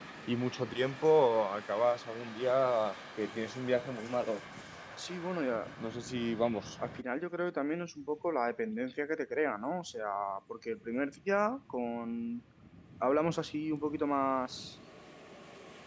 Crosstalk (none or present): none